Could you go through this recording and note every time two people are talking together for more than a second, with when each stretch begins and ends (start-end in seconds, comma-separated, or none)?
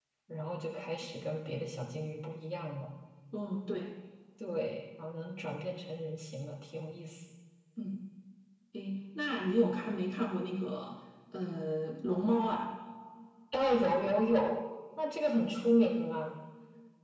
none